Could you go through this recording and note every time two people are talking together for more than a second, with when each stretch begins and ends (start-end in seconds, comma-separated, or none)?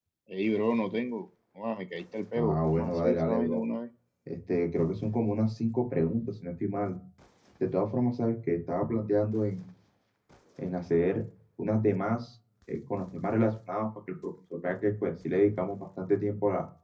2.3-3.6